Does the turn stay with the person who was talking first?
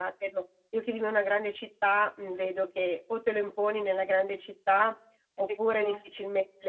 Yes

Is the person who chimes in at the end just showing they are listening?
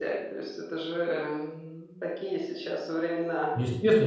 No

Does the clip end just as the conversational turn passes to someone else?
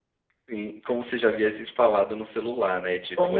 Yes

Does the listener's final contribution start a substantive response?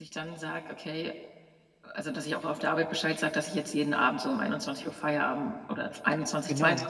No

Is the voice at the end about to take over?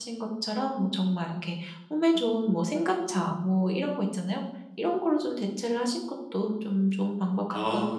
Yes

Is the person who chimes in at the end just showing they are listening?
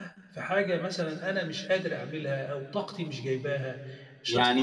No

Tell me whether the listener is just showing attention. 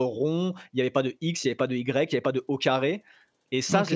No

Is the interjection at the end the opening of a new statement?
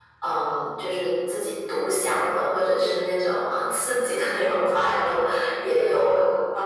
No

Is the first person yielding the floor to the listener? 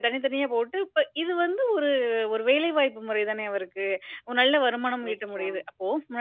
No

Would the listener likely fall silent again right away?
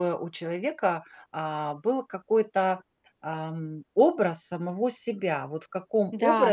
Yes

